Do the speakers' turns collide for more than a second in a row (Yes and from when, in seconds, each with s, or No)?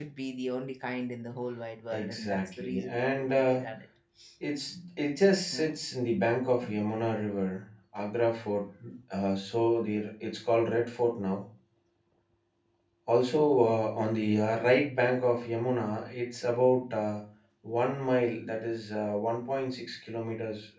Yes, from 1.9 s